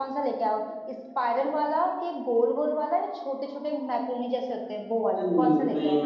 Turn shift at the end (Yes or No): Yes